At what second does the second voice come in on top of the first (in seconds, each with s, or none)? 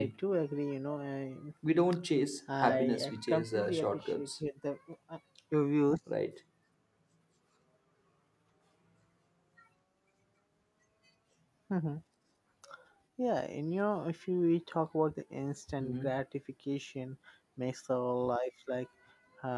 2.6 s